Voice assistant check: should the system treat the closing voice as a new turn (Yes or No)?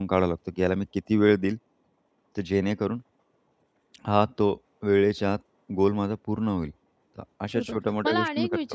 Yes